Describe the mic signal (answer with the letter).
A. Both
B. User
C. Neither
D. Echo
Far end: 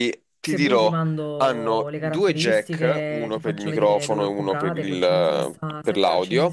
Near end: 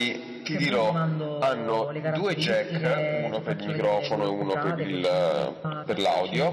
D